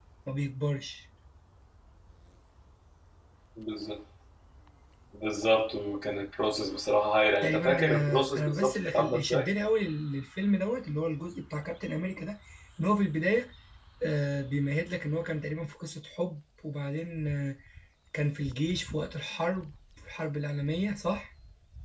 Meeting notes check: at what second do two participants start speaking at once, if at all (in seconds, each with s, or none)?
7.4 s